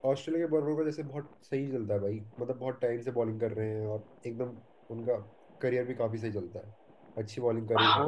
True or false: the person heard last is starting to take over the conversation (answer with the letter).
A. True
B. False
A